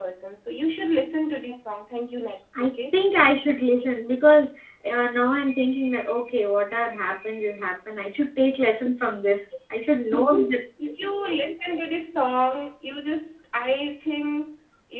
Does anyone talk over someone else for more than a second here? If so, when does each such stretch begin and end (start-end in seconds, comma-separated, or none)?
none